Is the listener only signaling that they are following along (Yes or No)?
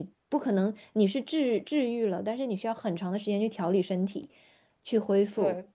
Yes